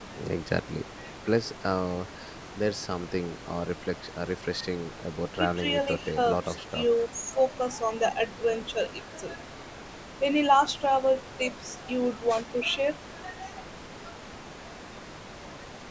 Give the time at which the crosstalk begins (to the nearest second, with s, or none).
5 s